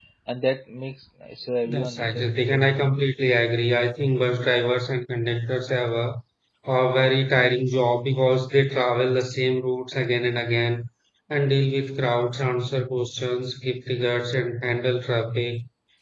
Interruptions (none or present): present